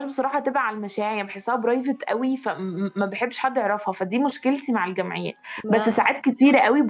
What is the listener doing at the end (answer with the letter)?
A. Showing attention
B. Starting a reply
A